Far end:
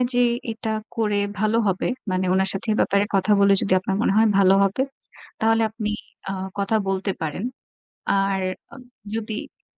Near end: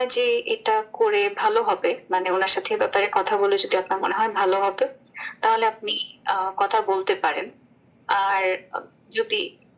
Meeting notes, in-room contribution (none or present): none